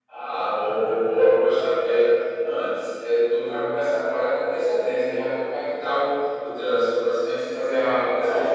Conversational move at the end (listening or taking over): taking over